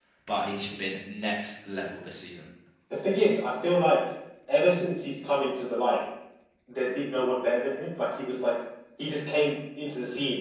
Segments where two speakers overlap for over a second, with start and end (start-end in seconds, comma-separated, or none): none